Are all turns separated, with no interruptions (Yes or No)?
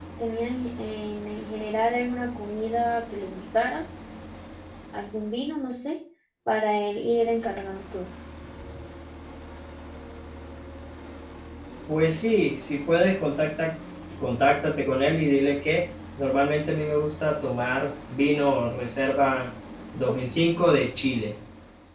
Yes